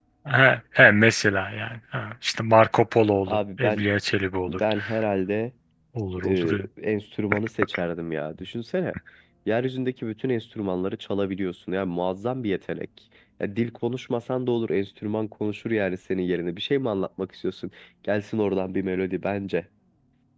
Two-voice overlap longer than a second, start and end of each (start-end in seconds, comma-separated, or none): none